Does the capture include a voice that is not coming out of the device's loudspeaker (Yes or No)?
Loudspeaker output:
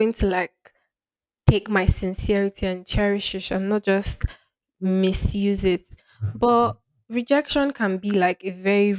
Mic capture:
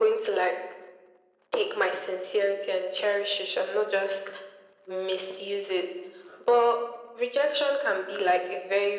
No